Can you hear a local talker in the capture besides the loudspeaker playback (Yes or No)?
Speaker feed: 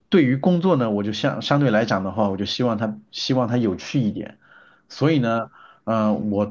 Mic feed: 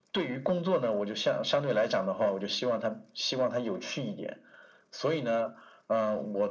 No